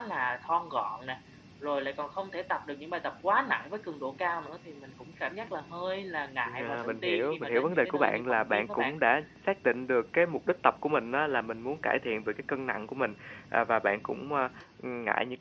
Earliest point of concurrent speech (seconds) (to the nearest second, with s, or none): 6 s